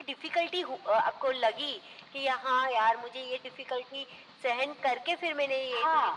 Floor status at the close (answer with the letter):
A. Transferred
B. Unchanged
A